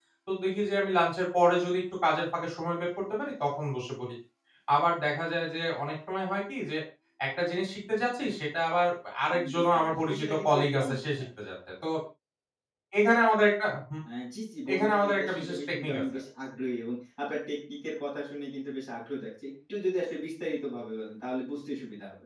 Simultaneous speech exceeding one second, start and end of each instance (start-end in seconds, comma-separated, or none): 9.5-11.0, 14.7-16.2